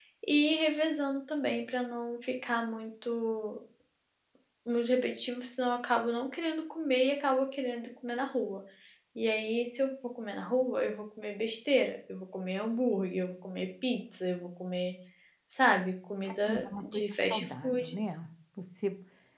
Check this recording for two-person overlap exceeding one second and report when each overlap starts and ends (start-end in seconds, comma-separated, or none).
16.3-17.8